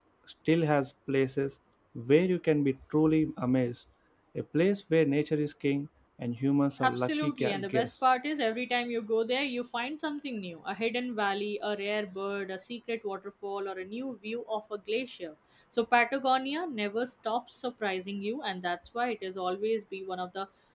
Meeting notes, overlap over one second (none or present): present